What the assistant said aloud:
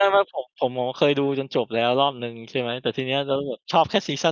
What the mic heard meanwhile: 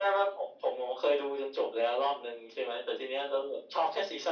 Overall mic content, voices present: echo only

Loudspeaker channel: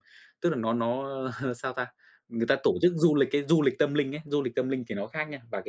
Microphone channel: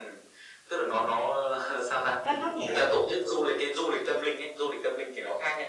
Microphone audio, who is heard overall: both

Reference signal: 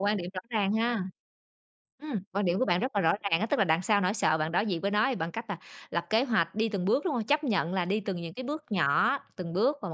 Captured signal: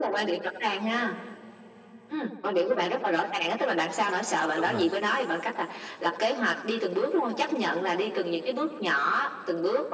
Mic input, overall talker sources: both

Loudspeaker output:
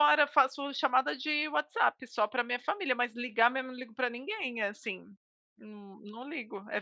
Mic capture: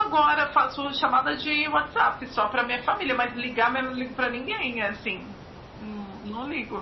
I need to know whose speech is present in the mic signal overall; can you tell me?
echo only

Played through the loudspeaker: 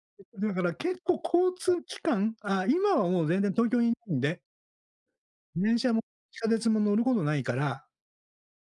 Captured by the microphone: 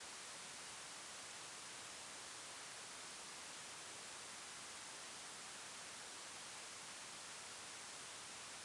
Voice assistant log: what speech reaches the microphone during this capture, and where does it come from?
neither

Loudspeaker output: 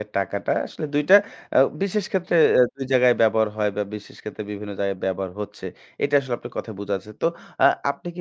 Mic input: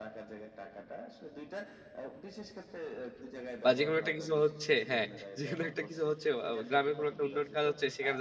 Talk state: both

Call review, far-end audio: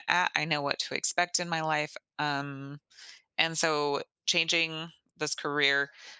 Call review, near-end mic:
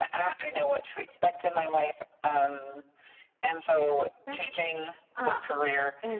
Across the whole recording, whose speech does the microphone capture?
both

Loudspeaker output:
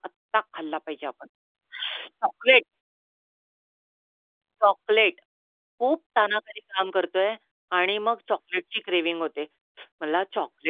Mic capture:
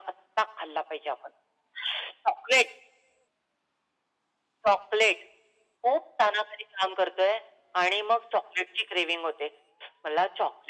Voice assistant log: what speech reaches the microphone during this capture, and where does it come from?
echo only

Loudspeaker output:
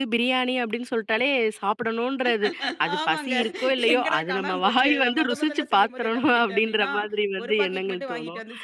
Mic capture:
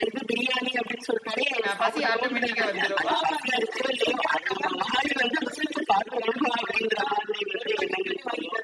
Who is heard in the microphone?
both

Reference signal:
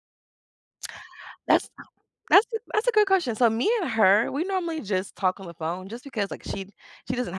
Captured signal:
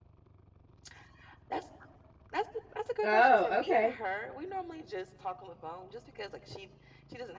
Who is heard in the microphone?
both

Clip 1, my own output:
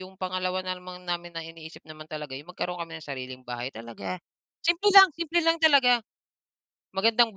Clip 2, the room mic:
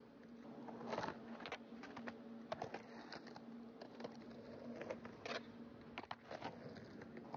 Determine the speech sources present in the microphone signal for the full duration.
neither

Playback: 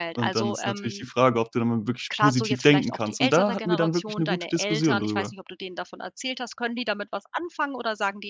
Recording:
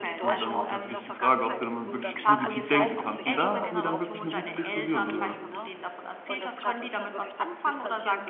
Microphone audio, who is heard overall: both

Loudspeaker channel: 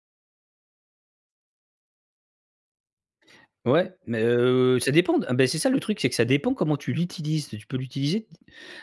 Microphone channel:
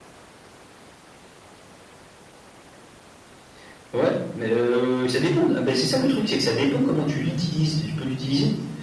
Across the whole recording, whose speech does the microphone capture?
echo only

